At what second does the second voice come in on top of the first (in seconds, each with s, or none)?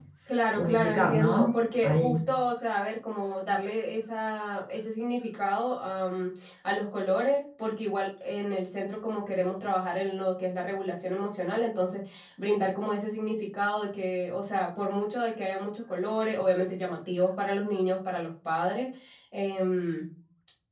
0.6 s